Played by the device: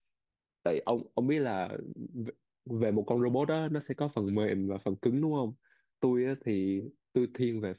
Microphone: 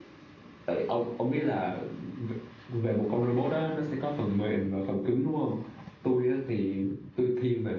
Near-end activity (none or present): none